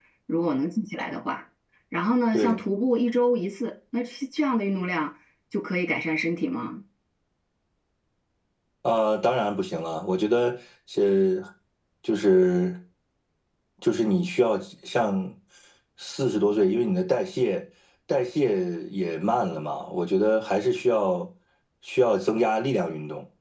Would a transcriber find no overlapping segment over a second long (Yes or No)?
Yes